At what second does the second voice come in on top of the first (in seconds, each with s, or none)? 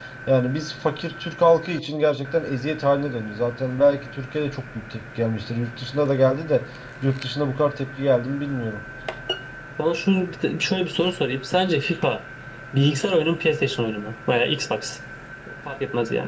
none